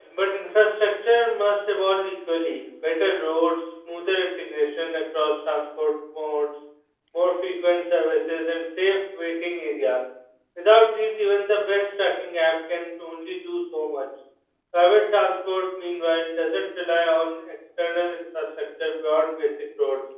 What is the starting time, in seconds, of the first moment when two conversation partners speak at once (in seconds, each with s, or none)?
none